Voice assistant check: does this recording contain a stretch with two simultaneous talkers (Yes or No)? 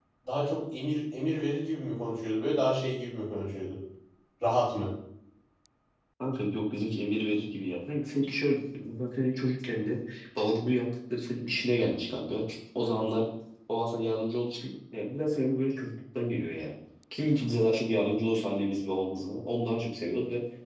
No